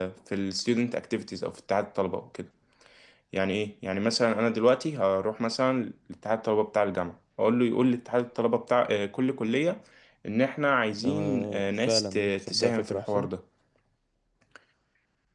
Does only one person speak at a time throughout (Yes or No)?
No